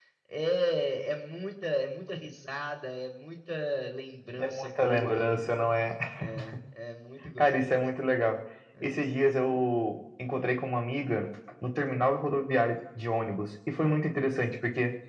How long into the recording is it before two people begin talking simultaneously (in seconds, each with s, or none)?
4.4 s